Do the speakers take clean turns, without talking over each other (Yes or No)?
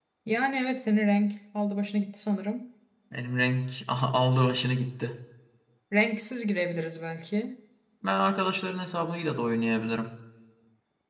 Yes